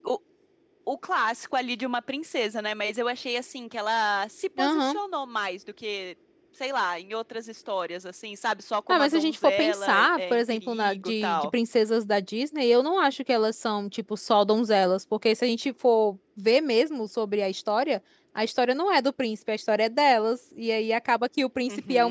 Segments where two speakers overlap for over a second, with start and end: 8.9-11.5

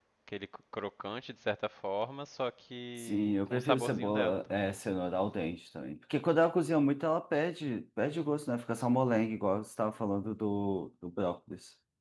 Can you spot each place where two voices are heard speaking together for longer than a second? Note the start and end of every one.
3.0-4.7

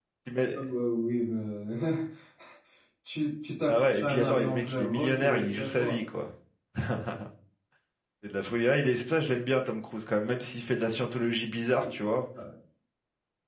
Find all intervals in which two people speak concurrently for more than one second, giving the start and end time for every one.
3.7-6.0

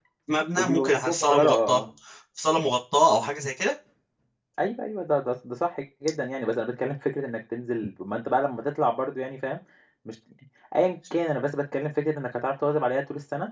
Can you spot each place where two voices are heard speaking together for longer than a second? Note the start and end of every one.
0.6-1.8

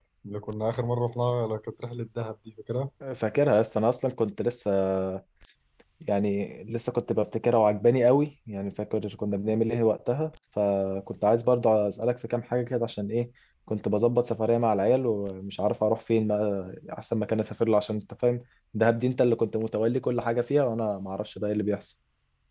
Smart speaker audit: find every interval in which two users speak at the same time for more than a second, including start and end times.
none

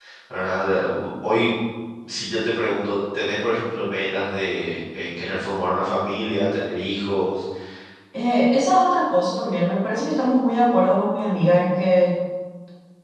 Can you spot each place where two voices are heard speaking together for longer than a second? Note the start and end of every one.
none

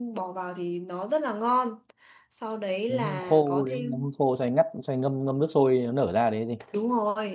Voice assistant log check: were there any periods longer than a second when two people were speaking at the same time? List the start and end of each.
2.9-4.1

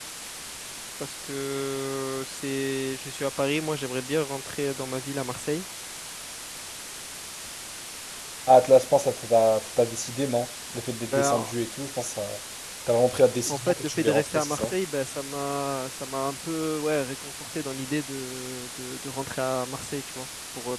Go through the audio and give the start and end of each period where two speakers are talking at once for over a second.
13.5-14.7

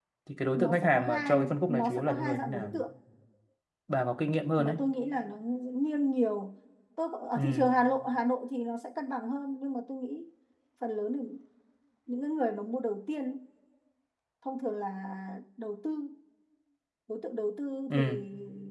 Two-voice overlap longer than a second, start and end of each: 0.6-2.7

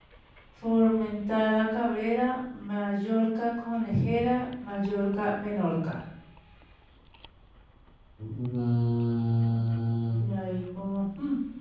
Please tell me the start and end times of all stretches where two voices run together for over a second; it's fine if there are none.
none

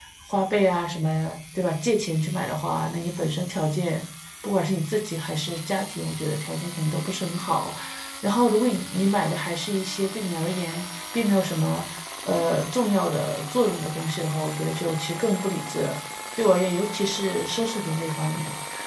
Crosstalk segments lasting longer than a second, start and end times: none

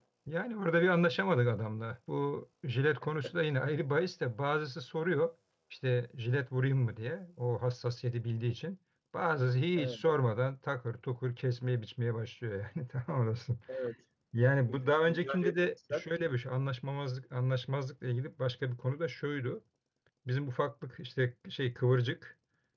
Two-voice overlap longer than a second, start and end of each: 14.7-16.0

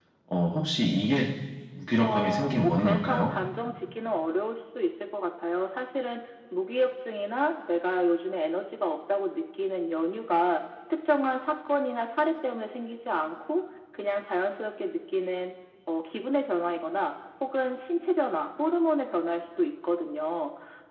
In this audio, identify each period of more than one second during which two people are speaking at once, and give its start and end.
2.0-3.3

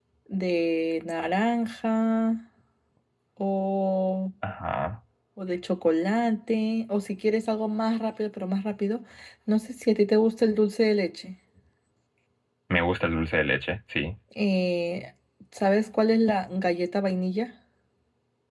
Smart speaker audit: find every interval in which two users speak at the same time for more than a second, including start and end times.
none

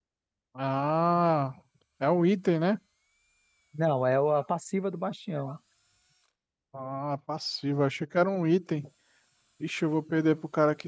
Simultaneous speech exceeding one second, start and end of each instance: none

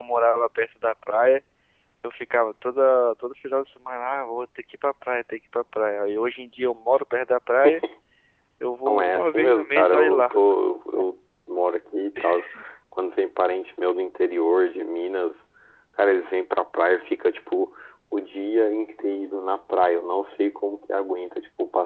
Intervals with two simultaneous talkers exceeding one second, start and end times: 8.9-10.4

